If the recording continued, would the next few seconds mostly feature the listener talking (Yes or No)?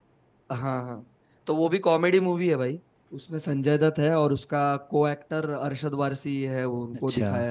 Yes